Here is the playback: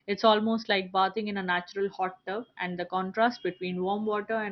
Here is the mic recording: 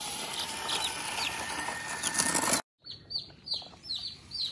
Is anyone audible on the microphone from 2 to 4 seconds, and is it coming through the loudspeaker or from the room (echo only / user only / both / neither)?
neither